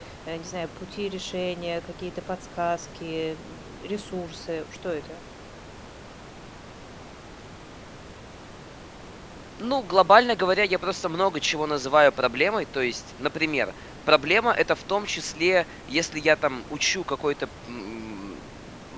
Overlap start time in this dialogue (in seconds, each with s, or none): none